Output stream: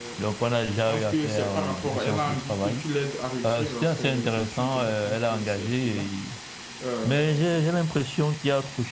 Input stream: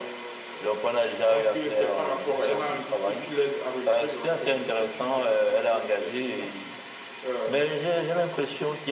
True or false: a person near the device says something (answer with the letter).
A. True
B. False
B